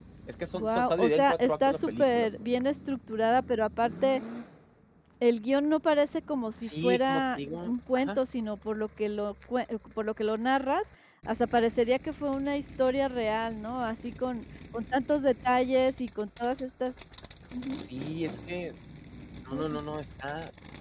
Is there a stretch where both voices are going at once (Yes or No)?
Yes